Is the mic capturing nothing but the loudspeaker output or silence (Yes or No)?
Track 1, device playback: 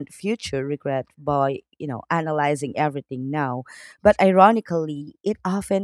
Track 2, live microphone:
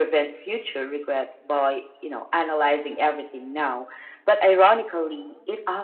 Yes